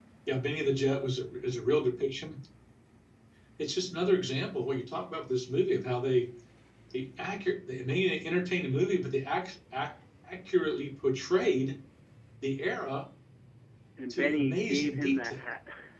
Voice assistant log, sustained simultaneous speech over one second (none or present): present